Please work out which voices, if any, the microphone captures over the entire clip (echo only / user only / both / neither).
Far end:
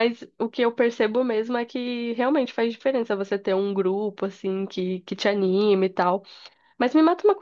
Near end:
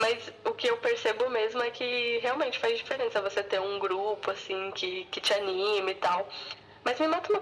echo only